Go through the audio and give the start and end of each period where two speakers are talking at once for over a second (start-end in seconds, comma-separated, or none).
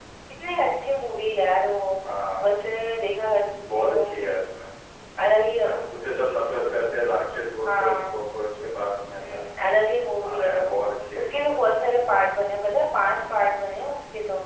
none